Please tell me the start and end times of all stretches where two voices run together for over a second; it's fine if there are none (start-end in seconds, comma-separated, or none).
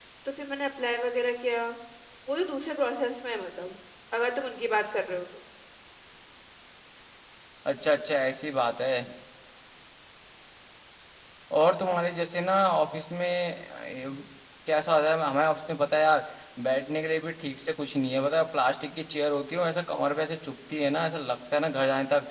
none